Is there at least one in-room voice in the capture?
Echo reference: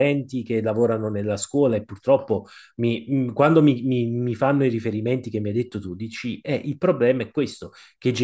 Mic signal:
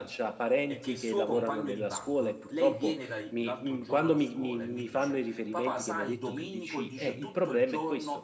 Yes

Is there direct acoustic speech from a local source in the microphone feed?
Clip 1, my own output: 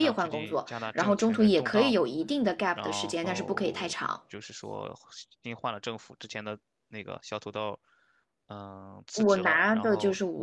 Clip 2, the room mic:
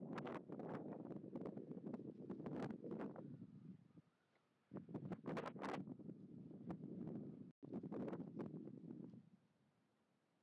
No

